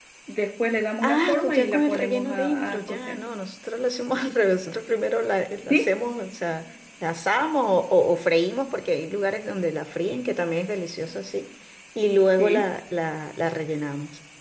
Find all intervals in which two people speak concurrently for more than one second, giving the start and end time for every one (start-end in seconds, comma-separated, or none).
1.0-3.2